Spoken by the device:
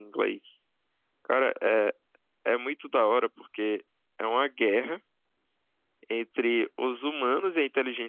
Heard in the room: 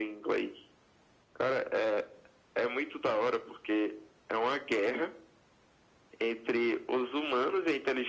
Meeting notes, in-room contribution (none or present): none